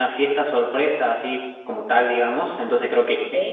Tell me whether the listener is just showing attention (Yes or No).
Yes